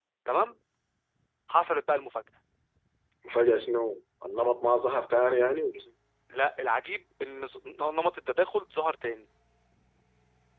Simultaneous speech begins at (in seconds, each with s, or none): none